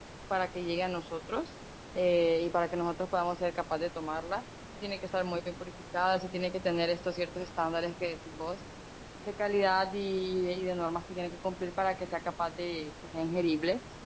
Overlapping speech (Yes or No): No